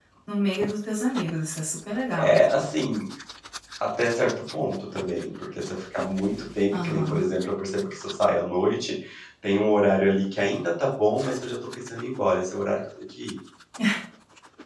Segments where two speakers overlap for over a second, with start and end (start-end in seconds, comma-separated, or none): none